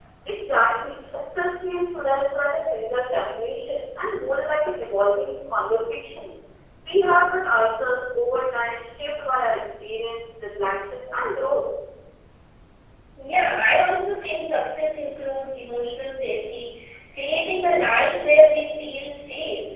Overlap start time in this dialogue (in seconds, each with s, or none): none